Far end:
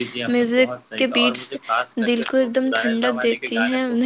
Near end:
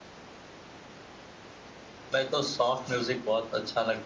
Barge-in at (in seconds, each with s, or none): 2.1 s